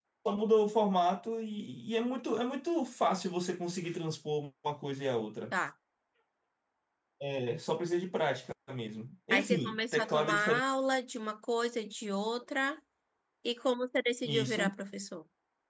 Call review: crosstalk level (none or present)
present